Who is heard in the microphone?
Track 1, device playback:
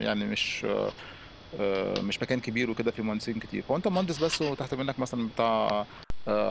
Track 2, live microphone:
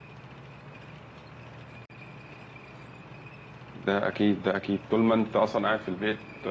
user only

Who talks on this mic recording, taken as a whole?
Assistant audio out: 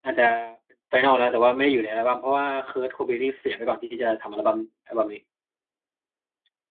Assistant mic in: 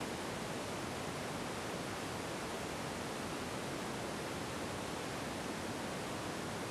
neither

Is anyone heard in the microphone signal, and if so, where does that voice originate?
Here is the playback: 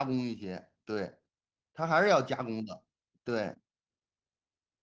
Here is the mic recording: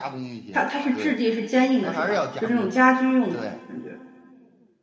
both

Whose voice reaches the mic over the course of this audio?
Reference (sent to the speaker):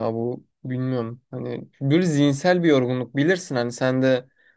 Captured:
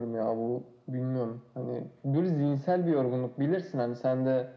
echo only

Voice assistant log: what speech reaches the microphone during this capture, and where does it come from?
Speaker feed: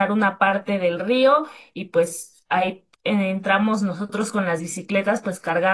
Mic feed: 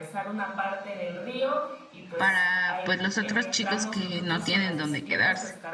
both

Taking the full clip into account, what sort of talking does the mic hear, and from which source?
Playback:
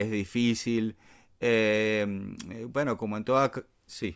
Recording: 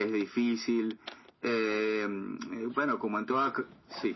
echo only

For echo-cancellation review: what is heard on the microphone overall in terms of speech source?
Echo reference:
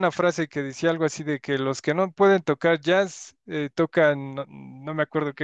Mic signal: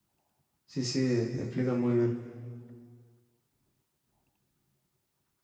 user only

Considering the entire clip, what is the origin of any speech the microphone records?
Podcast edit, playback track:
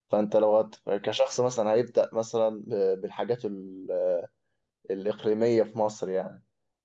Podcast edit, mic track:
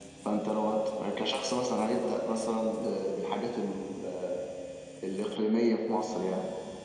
echo only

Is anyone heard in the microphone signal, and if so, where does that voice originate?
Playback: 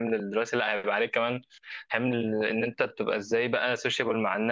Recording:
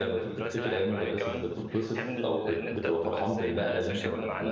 both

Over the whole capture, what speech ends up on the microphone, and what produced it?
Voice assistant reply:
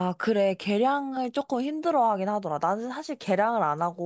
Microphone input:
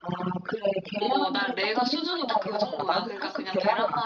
both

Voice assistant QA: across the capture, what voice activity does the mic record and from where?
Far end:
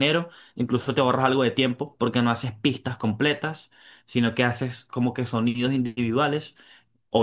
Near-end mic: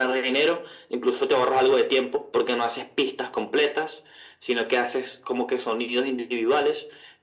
echo only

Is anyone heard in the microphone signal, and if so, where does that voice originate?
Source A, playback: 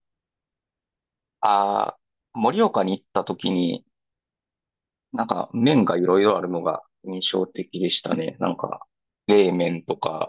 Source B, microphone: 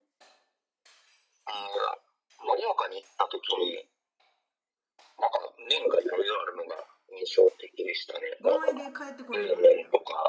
both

